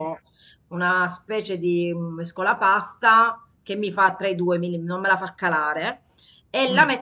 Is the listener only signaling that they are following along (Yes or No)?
Yes